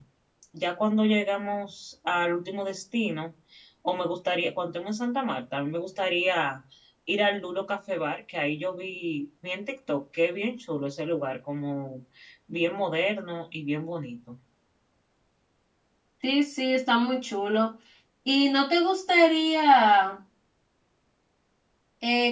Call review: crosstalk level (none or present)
none